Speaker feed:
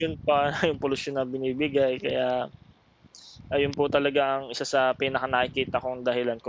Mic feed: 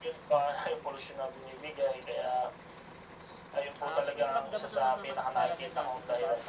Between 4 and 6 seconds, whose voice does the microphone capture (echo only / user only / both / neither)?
both